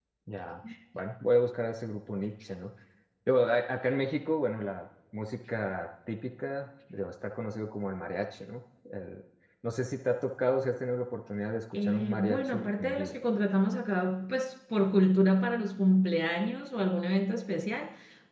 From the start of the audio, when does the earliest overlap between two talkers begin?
11.7 s

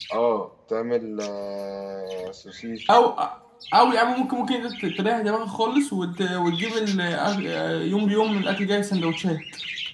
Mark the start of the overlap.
none

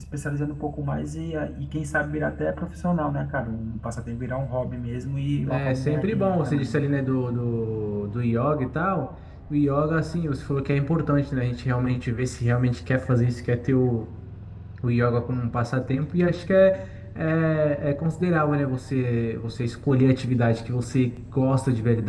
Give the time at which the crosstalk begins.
5.5 s

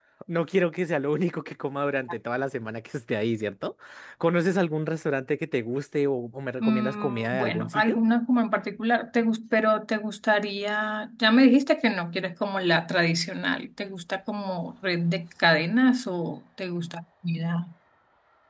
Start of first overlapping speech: 6.6 s

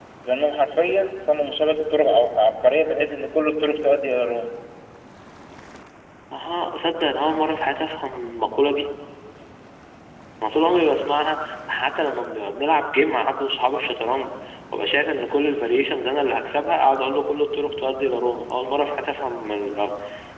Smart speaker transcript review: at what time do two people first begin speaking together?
none

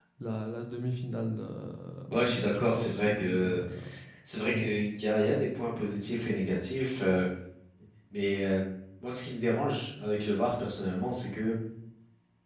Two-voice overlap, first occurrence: 2.1 s

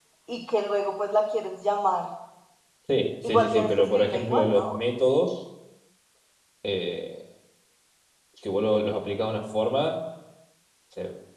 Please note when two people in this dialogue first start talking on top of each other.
3.2 s

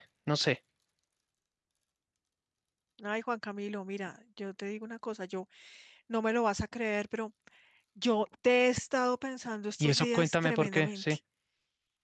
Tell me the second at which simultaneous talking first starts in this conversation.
9.7 s

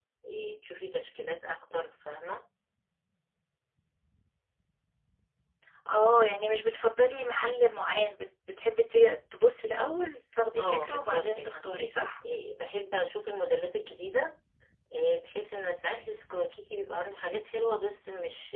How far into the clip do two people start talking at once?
10.5 s

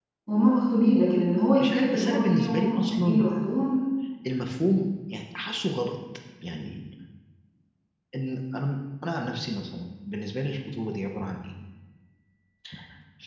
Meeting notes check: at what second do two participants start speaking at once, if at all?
1.6 s

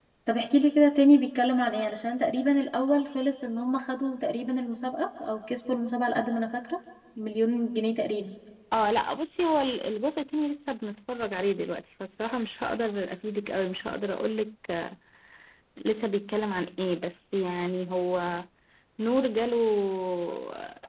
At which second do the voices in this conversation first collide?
none

